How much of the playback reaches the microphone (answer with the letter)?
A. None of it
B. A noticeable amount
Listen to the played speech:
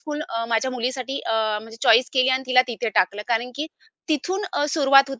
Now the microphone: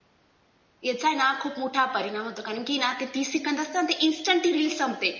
A